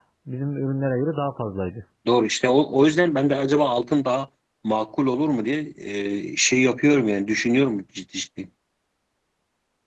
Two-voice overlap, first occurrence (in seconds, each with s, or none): none